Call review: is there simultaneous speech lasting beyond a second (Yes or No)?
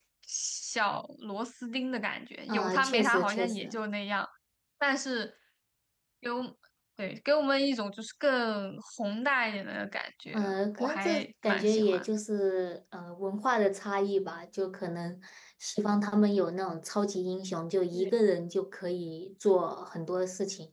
Yes